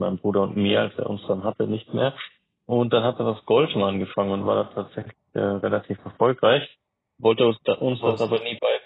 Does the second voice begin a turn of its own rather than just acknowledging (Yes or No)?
No